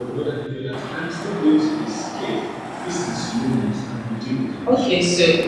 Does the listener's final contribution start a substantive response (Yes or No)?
Yes